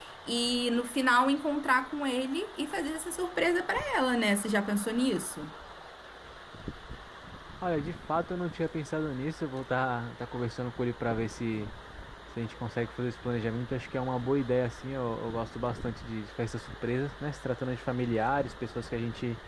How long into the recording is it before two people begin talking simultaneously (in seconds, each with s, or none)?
none